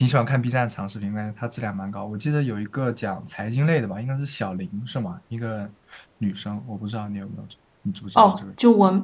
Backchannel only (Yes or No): No